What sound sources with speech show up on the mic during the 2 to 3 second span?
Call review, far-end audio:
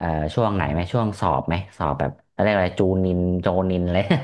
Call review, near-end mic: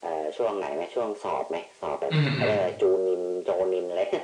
both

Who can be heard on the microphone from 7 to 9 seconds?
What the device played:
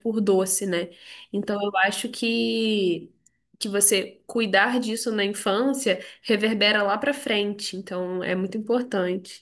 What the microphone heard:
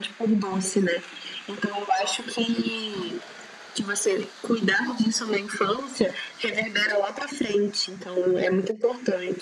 echo only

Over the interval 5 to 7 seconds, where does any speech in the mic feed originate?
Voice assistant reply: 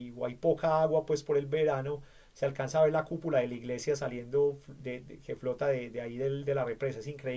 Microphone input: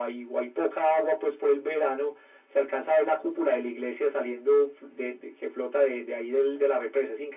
echo only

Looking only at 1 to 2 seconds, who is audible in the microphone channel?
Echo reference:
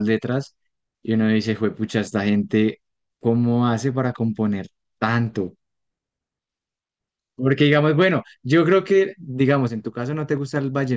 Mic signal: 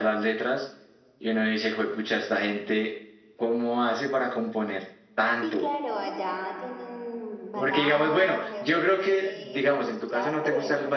echo only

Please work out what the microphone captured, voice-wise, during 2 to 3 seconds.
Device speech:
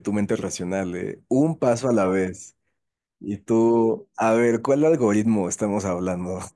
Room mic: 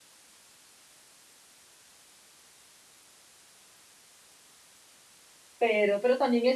neither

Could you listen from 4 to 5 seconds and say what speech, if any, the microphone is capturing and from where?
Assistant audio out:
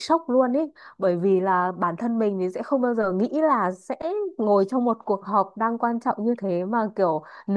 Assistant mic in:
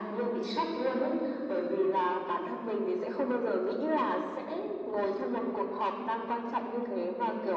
echo only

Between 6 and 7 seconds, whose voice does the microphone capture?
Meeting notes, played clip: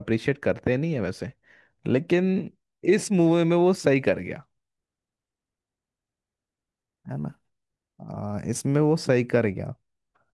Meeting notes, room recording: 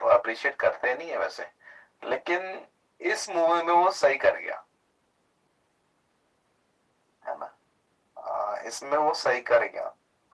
neither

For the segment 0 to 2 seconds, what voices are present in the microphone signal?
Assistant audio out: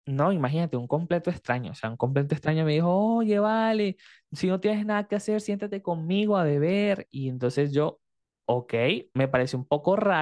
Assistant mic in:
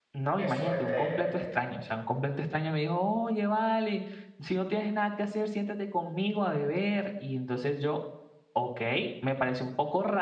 both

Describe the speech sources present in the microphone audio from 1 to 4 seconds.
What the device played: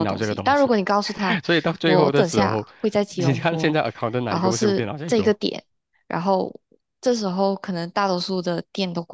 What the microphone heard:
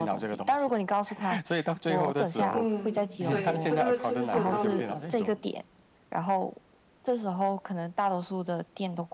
both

